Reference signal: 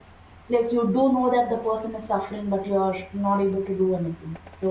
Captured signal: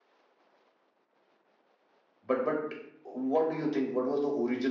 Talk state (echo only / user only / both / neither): user only